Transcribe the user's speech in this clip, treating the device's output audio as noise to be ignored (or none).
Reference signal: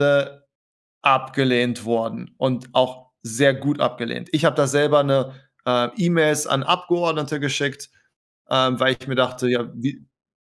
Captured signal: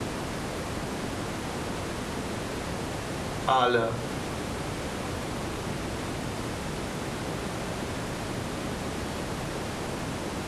Alle.